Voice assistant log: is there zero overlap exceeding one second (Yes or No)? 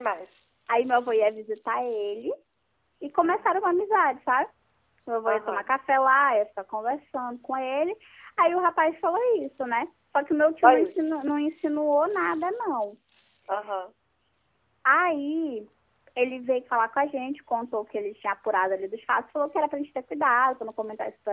Yes